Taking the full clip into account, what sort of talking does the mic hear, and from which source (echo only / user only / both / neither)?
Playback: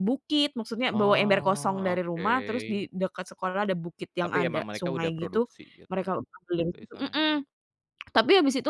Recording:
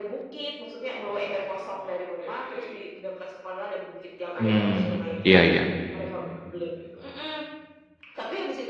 both